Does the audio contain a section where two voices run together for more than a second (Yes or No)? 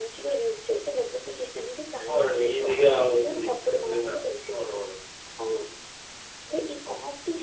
Yes